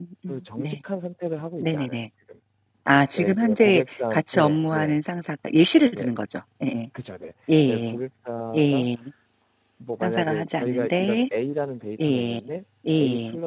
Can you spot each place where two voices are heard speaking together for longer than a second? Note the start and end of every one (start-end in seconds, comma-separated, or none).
3.1-5.0, 10.0-11.2